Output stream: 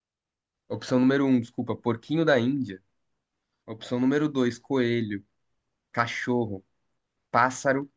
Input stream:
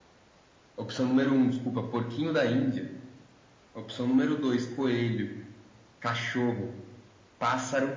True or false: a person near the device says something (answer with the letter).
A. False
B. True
A